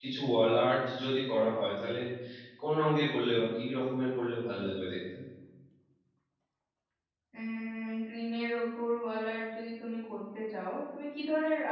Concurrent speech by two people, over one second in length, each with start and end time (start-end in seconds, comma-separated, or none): none